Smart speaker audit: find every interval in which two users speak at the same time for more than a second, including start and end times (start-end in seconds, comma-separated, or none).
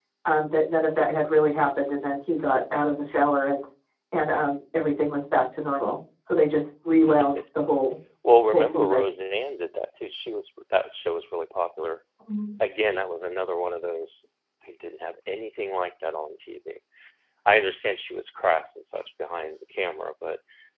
none